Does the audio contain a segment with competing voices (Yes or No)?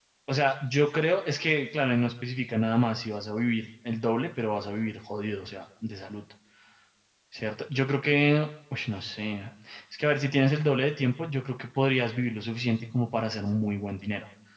No